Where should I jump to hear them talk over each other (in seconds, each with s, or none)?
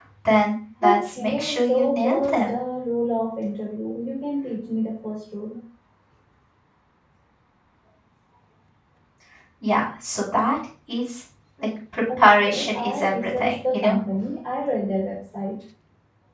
0.8 s